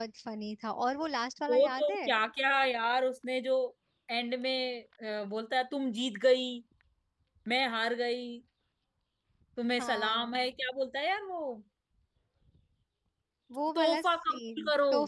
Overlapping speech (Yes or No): Yes